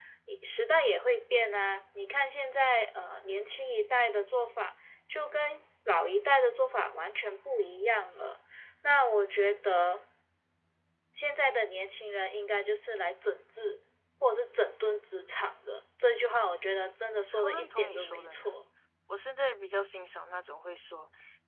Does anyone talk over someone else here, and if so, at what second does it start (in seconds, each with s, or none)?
17.2 s